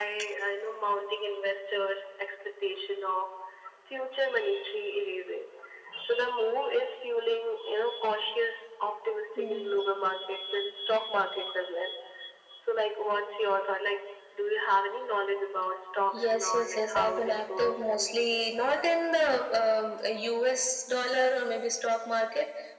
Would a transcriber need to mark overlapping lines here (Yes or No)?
Yes